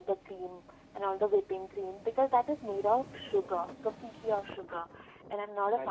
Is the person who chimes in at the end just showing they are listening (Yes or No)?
No